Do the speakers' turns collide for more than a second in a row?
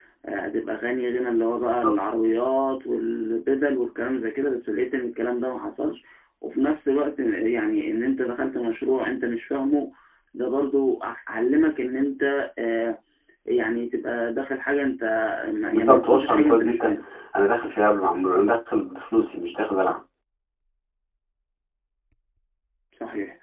Yes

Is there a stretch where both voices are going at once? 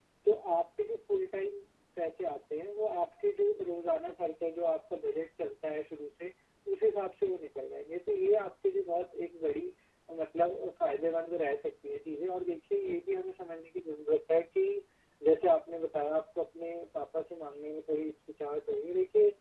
No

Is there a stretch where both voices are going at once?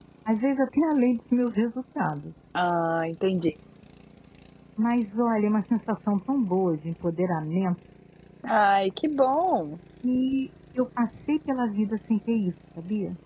No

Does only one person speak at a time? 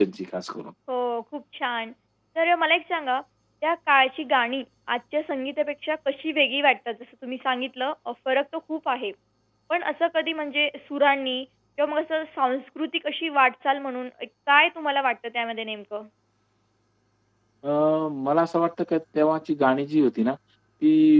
Yes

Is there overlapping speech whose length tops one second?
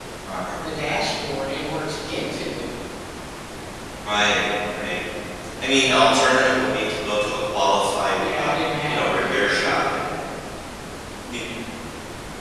Yes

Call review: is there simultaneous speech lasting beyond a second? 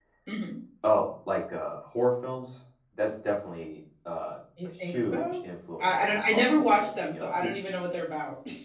Yes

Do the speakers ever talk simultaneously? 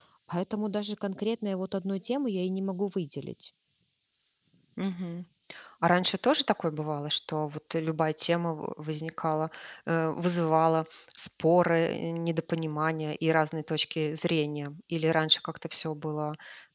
No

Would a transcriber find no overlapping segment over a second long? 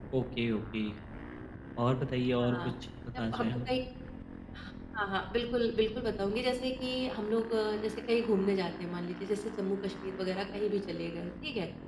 Yes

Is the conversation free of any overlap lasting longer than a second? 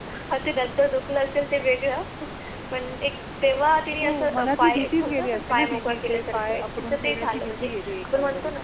No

